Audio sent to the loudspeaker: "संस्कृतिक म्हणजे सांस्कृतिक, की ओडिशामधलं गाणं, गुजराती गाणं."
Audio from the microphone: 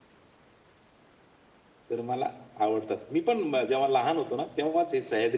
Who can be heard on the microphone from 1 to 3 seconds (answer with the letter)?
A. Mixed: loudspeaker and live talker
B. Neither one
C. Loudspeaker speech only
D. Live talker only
D